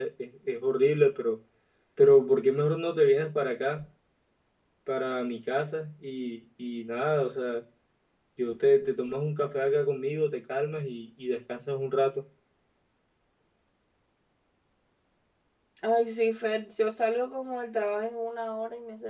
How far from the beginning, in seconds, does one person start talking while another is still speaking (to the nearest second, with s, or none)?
none